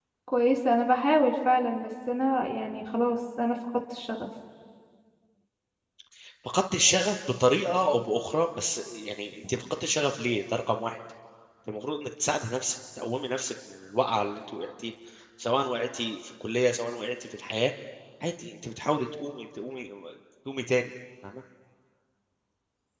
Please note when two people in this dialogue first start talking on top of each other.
none

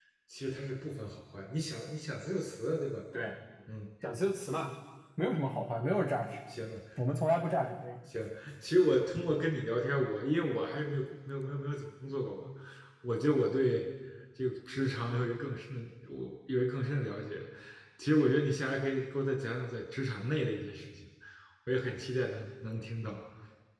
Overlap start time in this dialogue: none

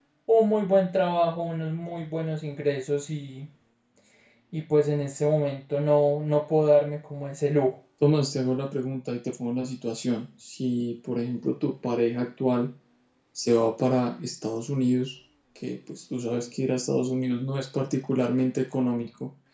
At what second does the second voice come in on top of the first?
none

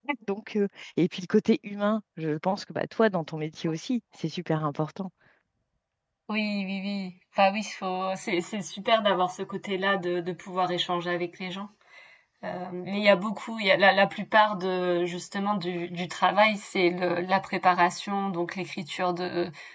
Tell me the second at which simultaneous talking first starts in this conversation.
none

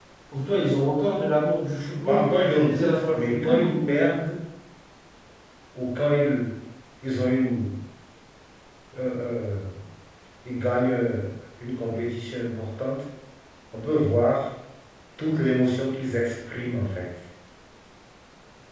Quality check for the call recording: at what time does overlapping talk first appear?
2.1 s

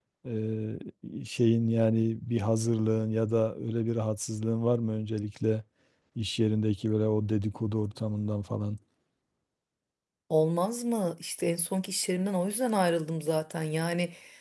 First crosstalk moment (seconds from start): none

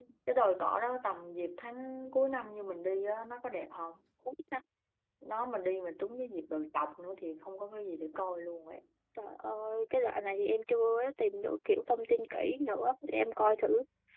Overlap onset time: none

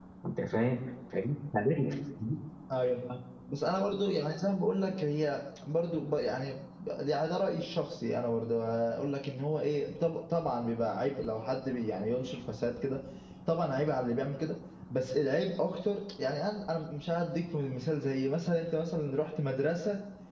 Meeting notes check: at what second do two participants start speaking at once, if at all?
none

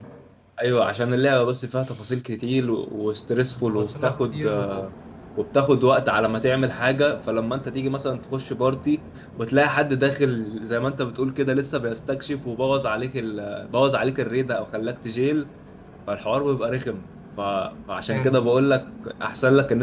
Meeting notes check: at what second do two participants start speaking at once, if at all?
3.6 s

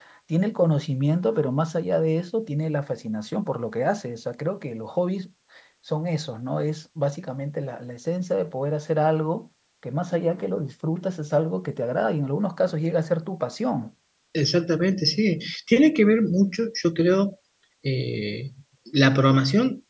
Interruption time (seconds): none

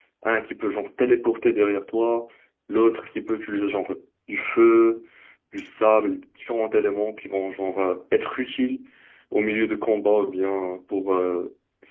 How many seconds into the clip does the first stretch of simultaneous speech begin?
none

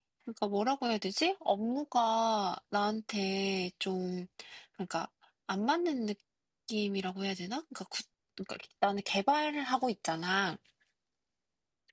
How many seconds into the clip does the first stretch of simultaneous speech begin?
none

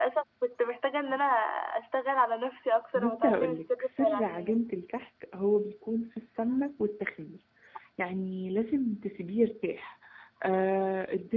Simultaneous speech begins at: 3.0 s

